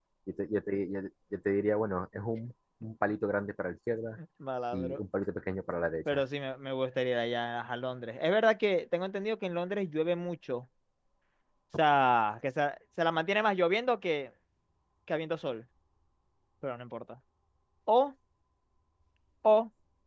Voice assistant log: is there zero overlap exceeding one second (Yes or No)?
Yes